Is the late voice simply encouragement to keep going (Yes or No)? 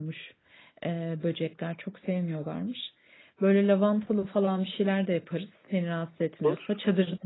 Yes